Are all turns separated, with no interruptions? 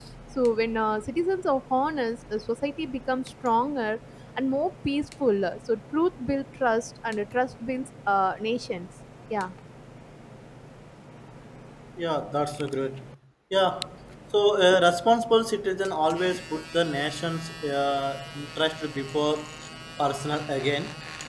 Yes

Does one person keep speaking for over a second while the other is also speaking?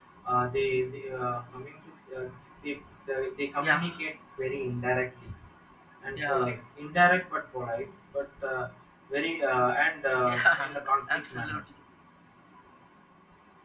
Yes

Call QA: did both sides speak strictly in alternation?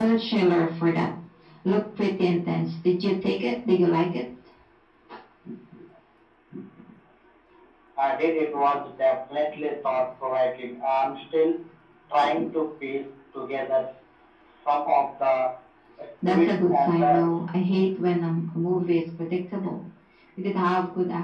No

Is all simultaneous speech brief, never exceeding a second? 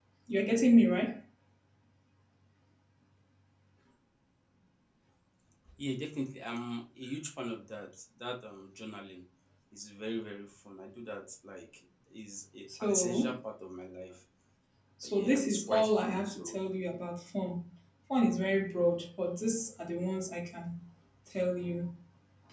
No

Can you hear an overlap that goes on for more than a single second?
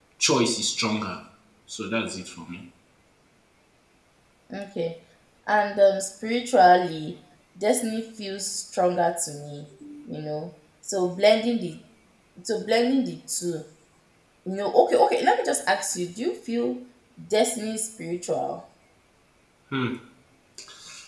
No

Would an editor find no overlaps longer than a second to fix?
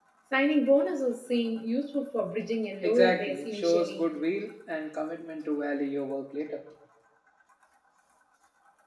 No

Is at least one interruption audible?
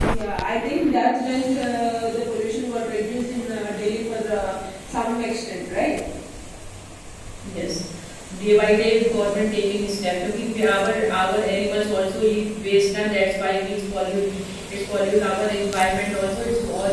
No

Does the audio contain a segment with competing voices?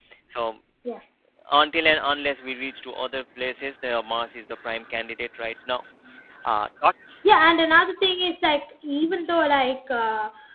No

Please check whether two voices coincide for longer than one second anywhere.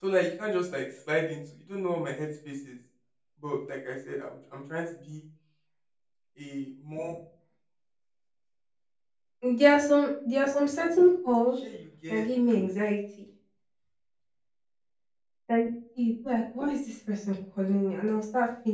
No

